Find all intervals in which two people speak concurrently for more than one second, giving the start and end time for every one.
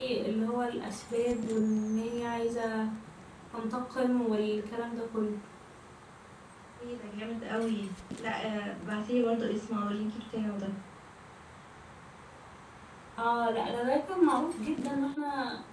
none

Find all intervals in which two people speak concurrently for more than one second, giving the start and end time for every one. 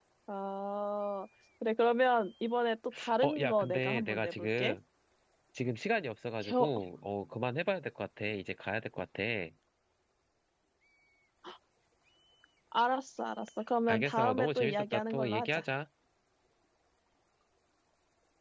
3.2-4.8, 13.9-15.6

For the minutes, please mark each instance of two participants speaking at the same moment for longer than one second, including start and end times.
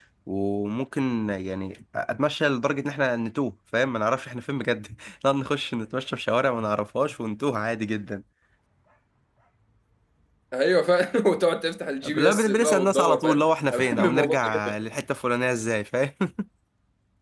12.1-14.8

